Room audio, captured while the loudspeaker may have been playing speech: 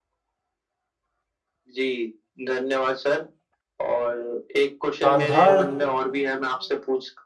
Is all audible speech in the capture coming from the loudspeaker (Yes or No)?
No